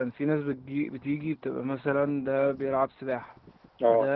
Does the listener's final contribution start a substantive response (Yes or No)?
No